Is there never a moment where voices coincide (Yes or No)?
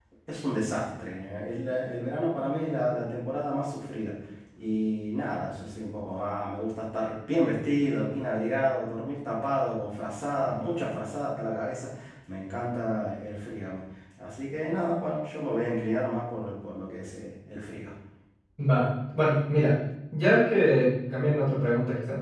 Yes